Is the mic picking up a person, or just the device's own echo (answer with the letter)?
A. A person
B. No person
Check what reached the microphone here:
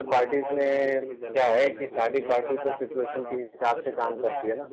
A